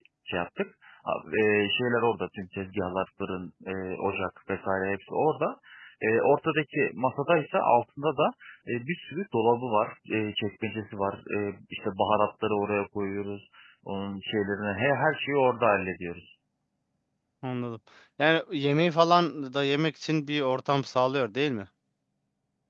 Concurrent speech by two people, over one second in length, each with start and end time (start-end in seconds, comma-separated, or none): none